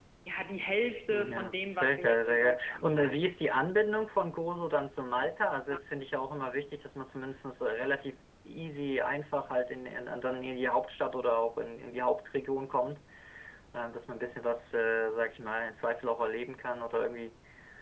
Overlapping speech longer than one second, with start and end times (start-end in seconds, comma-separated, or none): 1.1-3.3